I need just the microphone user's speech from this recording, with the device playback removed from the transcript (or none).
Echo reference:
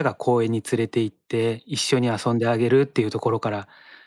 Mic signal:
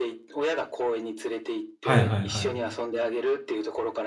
はいはいはい。